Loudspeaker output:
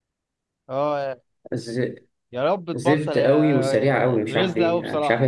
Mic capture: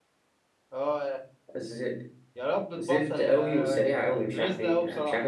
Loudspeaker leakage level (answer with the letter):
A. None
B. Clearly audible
B